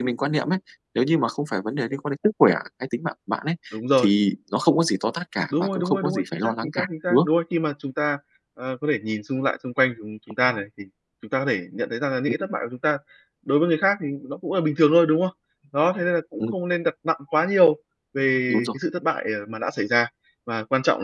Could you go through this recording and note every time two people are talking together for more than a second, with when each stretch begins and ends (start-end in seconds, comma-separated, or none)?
5.6-7.3